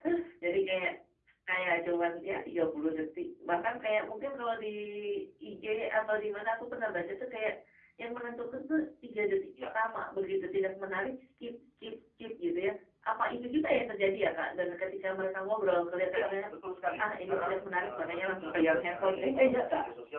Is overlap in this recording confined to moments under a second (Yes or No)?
No